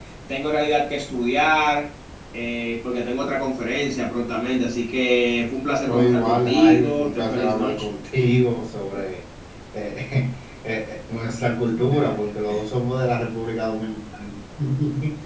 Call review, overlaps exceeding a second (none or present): present